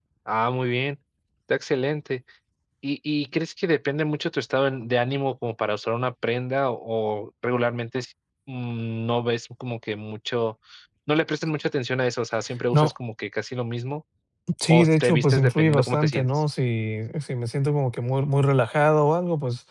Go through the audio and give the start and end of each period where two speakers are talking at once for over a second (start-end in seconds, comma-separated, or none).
14.7-16.3